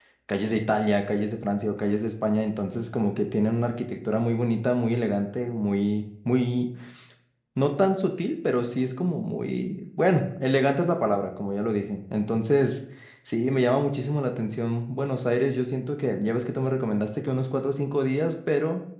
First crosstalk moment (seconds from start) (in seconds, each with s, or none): none